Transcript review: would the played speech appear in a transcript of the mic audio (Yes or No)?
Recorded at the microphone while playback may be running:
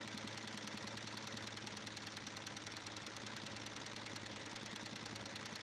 No